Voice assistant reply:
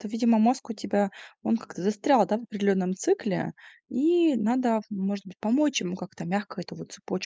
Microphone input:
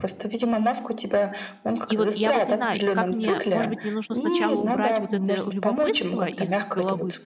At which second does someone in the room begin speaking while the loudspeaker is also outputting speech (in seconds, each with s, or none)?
1.9 s